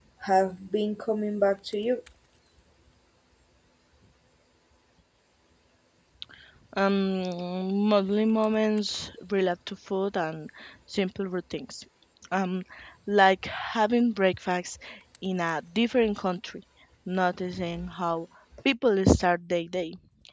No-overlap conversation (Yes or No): Yes